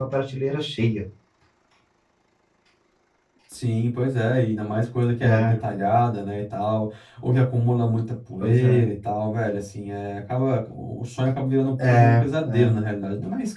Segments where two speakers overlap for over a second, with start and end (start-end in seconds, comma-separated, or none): none